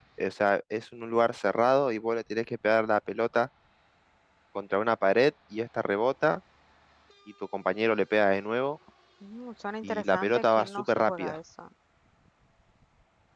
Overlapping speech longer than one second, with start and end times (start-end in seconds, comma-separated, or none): 9.8-11.4